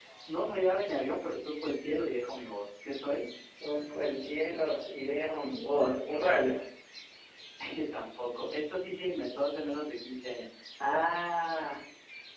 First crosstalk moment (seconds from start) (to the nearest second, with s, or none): none